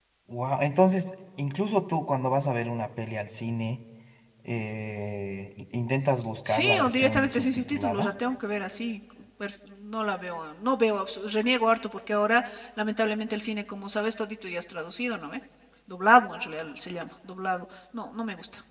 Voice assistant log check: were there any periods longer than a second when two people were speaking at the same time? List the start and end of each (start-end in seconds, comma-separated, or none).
6.5-8.1